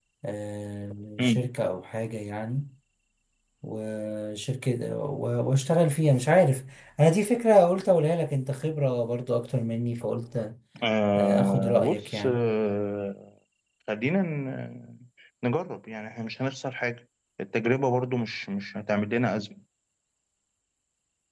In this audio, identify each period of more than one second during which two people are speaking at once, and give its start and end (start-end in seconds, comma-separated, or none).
11.2-12.4